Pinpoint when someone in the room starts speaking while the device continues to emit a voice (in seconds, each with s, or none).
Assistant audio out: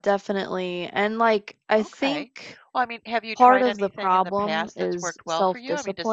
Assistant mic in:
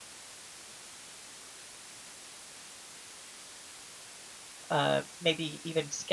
4.7 s